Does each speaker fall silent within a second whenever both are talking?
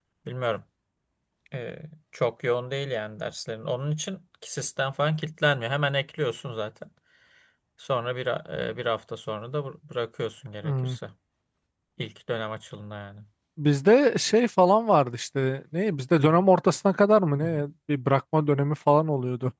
Yes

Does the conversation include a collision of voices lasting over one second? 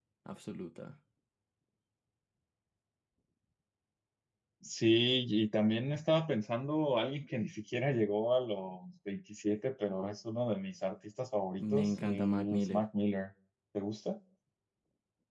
Yes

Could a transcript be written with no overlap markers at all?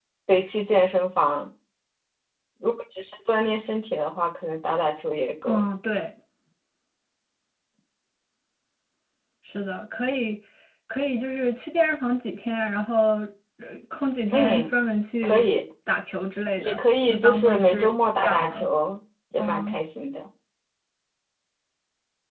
No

